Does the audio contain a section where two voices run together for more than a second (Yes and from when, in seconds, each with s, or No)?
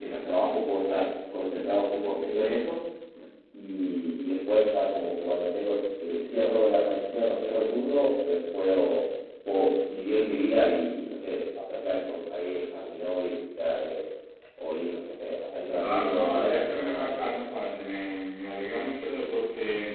Yes, from 15.7 s